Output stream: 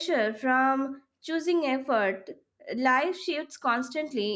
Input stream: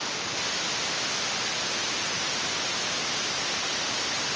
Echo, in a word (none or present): none